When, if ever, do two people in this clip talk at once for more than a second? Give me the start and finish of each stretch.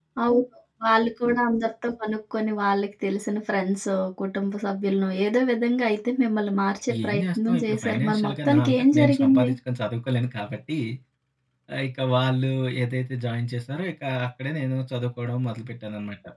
7.0-9.5

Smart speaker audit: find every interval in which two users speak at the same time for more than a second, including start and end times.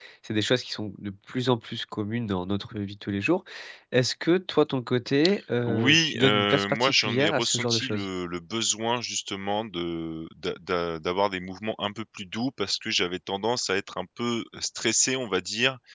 5.6-8.1

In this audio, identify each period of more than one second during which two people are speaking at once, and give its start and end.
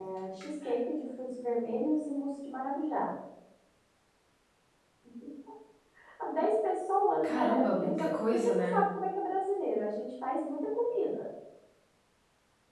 7.2-8.8

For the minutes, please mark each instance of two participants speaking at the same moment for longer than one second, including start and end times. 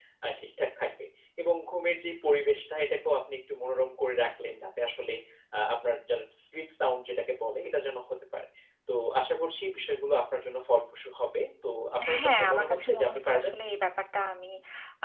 12.2-13.5

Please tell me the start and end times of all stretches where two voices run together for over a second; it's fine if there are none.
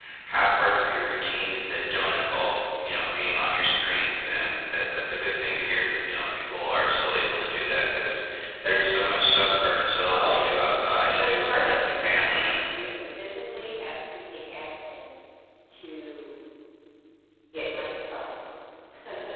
11.1-12.5

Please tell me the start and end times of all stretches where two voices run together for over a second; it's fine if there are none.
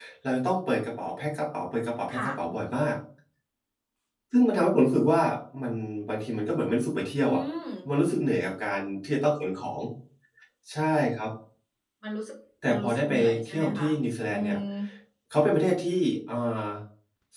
12.7-13.9

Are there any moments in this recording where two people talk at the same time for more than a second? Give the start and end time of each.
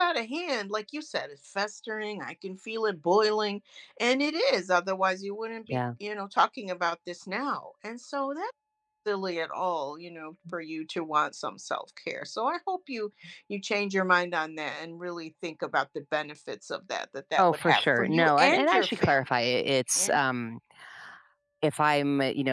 17.4-19.2

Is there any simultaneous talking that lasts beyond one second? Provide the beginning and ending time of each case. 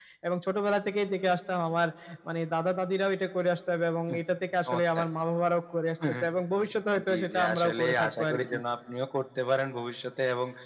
7.1-8.4

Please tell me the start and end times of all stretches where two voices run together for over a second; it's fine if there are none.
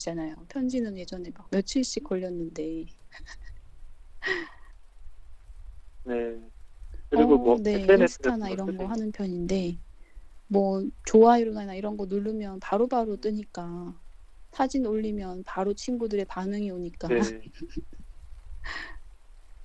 7.2-9.0

